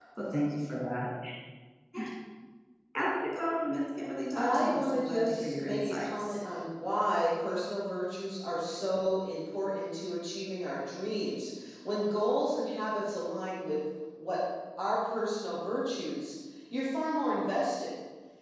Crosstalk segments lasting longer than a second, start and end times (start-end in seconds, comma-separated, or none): 4.3-6.3